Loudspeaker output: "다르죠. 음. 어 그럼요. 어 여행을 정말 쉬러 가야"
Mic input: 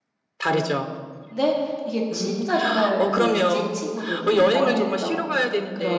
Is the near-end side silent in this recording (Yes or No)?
No